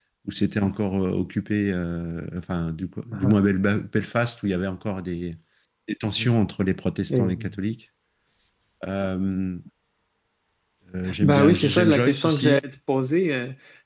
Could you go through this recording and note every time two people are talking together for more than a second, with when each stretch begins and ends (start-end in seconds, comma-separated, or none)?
11.2-12.6